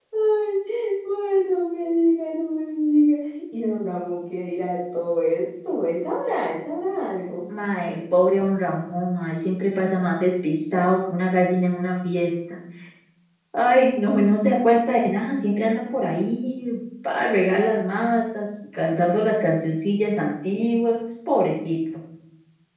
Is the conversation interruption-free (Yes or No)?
Yes